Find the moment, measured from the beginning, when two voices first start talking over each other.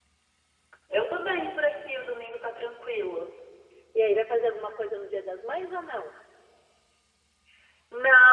none

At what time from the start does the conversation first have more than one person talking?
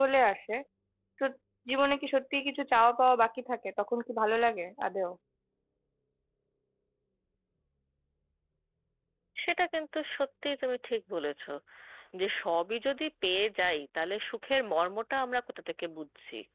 none

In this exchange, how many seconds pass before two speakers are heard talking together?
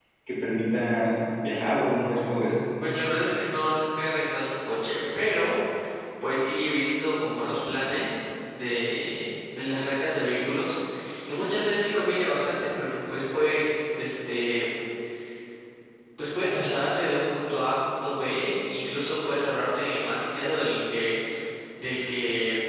none

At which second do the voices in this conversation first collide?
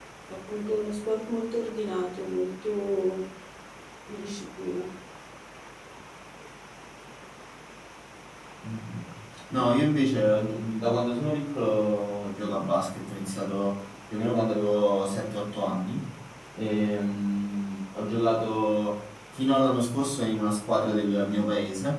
none

